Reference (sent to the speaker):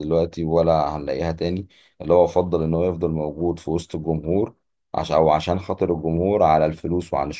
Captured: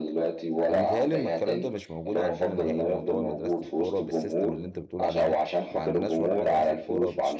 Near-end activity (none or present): present